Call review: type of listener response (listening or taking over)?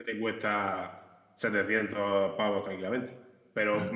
listening